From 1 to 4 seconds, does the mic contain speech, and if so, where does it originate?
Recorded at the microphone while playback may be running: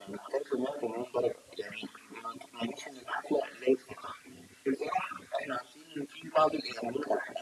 echo only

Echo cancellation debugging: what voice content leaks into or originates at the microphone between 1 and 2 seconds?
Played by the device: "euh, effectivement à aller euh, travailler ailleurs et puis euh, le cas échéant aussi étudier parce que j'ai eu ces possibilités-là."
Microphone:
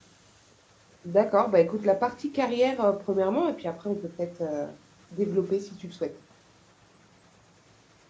user only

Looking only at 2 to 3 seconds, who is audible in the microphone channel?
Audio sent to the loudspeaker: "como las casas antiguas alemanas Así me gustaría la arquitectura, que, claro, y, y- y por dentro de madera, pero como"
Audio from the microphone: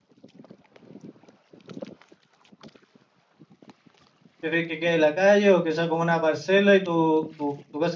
neither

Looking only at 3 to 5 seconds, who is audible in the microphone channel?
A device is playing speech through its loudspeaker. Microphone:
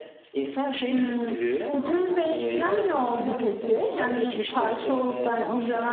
both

